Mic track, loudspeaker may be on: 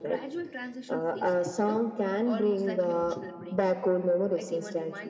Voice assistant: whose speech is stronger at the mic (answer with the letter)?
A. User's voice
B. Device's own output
B